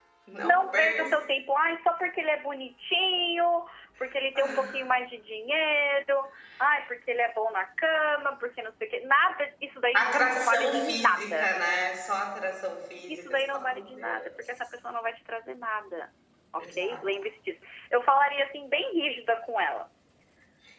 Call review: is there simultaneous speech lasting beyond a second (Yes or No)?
Yes